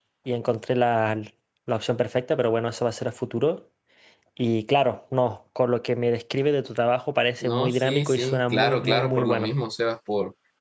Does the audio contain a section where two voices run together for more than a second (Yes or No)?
Yes